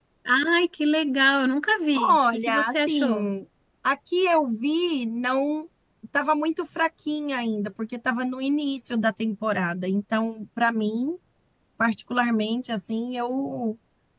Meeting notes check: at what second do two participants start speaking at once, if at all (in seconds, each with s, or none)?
1.9 s